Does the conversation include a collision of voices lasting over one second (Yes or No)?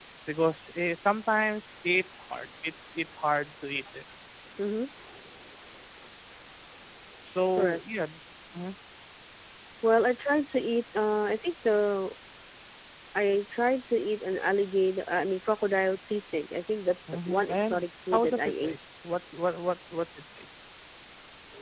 Yes